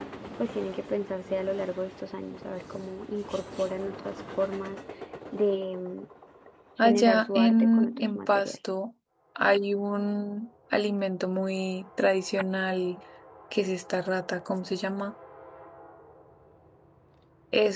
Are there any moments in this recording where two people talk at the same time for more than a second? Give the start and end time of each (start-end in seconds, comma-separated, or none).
6.8-8.6